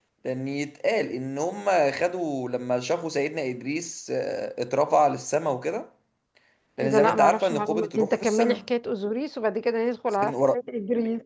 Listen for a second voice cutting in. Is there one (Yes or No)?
Yes